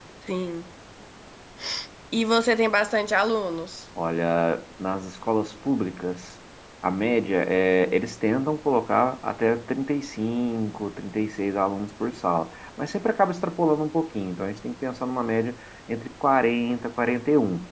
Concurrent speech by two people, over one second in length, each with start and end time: none

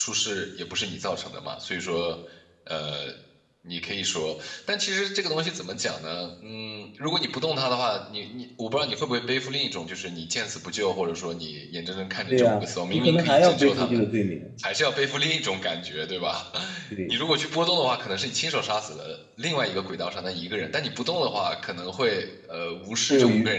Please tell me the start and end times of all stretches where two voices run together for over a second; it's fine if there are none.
12.3-14.0

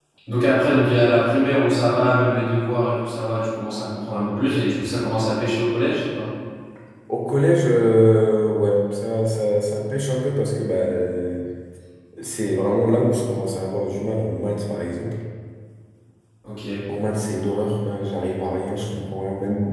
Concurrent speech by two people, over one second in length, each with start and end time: none

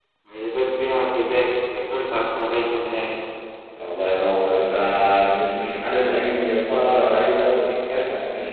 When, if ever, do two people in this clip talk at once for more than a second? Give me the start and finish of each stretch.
none

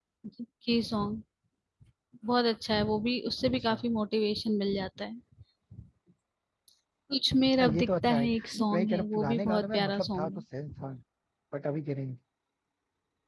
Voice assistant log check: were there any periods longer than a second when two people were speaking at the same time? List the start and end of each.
7.6-10.4

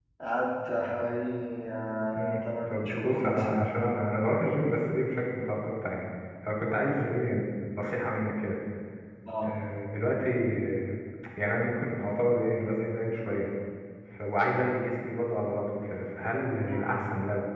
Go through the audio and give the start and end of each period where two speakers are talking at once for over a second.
2.1-3.7

